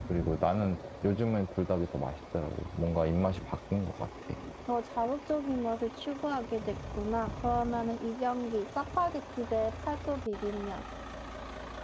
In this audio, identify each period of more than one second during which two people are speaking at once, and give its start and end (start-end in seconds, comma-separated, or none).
none